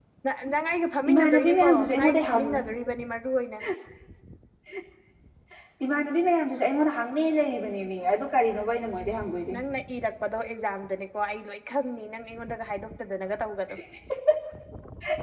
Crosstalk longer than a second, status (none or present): present